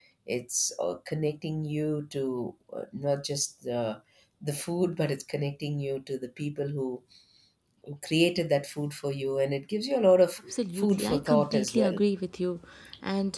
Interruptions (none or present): present